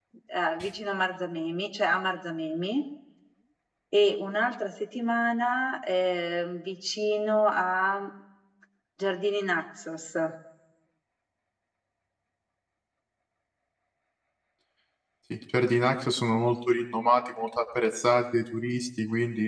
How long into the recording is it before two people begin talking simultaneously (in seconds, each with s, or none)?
none